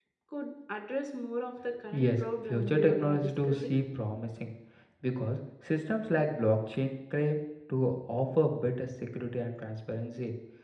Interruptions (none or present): present